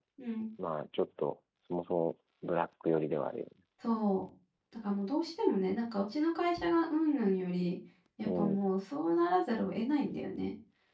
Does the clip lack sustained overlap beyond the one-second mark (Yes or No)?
Yes